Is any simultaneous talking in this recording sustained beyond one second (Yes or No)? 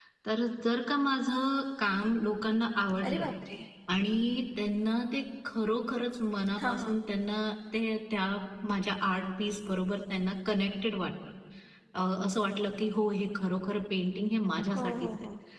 No